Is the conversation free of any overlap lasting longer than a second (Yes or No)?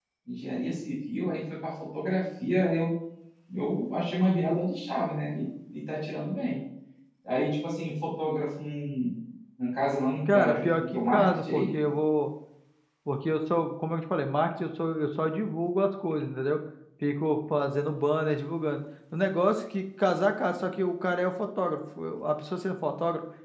No